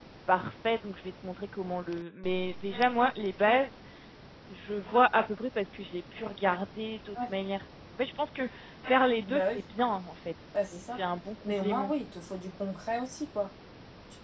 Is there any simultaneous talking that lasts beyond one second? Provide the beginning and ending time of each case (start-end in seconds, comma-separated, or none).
none